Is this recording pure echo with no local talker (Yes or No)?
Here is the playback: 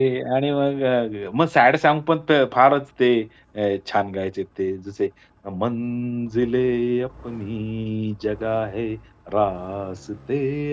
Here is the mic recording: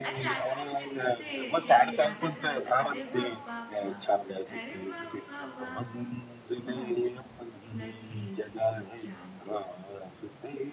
No